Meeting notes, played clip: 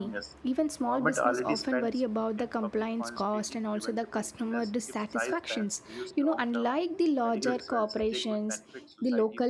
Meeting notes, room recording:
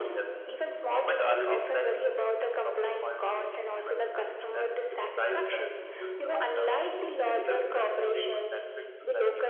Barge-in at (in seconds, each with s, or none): none